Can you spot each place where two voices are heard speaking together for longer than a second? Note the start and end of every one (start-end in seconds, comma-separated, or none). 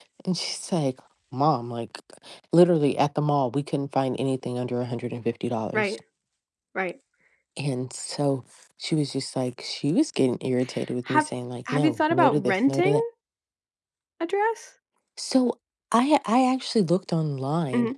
11.7-13.0